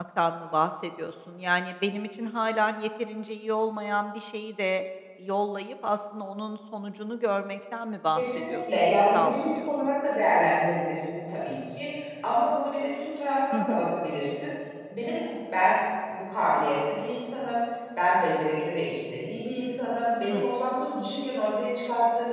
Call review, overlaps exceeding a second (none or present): present